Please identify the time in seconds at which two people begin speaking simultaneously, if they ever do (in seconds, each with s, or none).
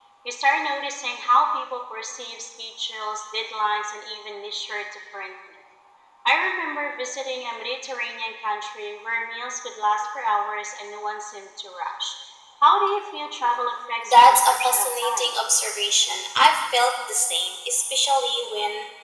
14.0 s